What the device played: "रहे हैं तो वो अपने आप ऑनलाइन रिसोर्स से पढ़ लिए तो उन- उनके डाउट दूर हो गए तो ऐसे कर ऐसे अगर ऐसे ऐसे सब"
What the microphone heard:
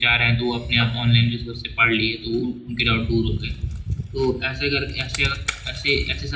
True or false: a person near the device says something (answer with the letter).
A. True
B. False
B